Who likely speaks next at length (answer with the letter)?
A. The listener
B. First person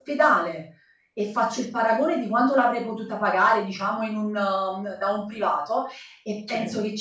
B